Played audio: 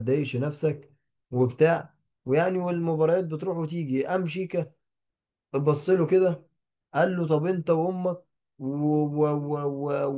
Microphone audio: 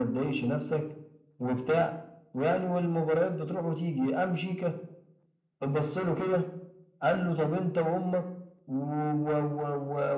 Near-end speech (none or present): none